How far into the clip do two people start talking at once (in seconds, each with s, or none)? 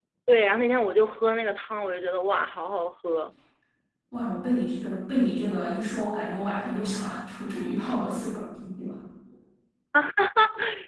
none